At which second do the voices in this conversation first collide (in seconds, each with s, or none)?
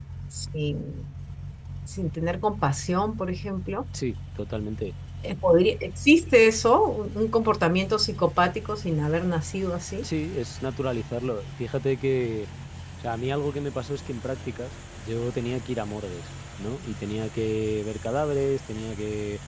none